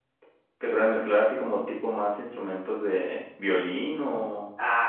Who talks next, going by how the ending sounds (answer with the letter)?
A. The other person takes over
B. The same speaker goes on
A